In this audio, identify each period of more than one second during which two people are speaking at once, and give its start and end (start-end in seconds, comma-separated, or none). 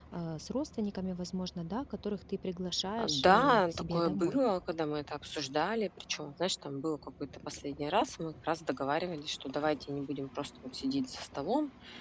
3.0-4.4